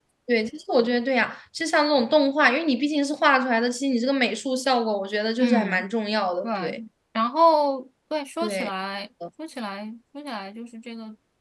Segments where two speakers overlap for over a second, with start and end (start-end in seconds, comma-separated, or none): none